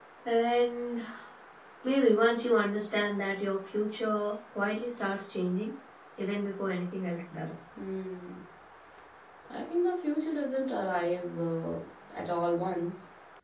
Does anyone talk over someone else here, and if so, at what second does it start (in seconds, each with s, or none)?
none